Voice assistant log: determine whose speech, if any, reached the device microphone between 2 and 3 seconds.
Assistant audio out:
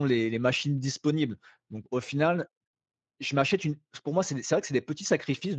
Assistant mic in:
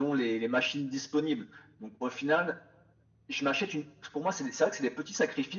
echo only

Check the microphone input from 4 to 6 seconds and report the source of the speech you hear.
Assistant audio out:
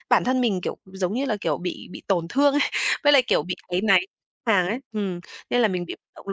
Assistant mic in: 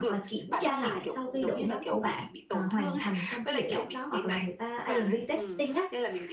both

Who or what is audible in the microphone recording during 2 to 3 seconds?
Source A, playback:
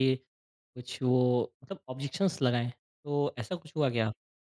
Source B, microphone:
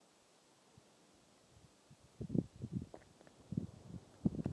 neither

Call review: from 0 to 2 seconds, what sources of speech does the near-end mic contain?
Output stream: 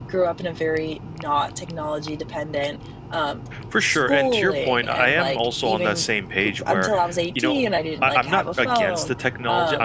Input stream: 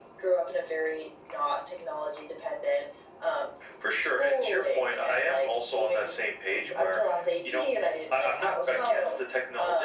echo only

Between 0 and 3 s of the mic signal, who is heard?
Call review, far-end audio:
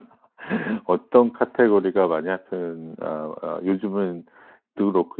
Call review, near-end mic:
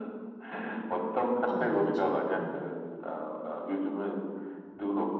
both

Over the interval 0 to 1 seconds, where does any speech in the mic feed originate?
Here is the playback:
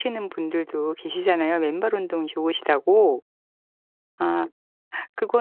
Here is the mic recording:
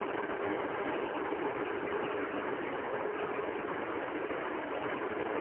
neither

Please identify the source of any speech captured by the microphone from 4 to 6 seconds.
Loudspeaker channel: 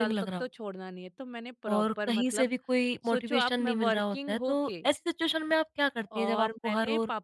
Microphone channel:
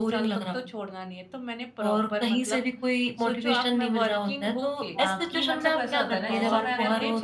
both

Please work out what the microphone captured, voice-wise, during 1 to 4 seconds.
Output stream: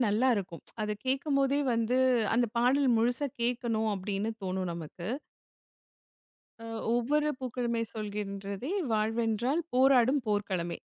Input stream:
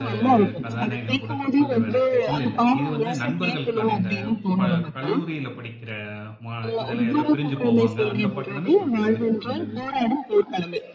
both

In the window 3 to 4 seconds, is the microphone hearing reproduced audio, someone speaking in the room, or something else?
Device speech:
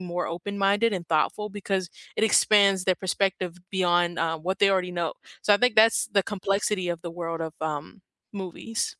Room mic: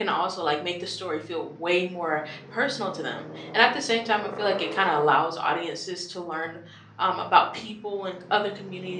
user only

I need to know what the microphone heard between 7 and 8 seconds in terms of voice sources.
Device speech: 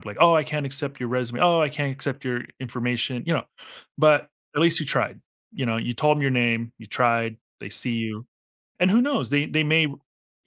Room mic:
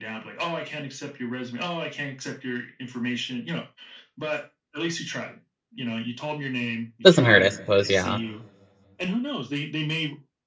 both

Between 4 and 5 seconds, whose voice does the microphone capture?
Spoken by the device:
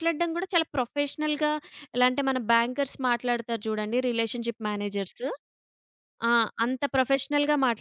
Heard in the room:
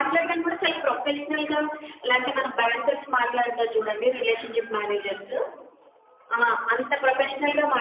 echo only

